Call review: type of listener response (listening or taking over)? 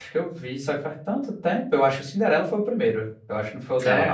taking over